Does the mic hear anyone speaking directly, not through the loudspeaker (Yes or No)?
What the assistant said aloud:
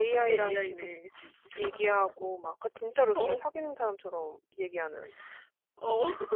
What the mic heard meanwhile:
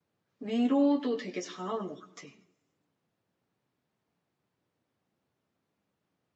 Yes